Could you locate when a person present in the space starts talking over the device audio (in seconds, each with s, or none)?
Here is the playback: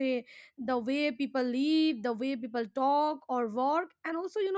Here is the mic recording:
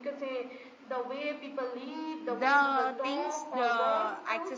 2.3 s